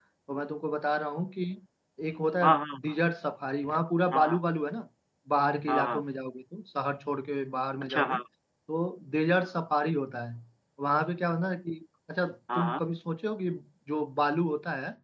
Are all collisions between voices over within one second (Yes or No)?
Yes